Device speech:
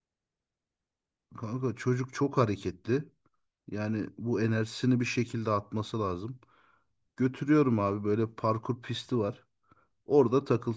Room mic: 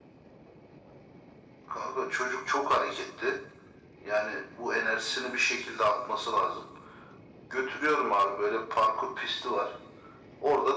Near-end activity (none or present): none